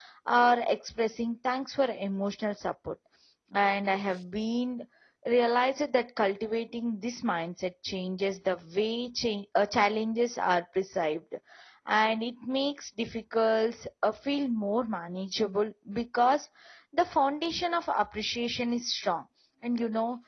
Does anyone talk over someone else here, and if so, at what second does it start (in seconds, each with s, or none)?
none